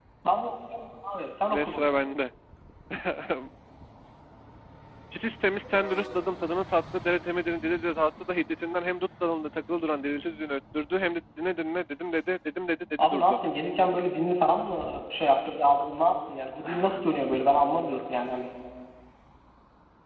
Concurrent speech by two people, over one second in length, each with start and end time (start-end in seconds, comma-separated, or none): none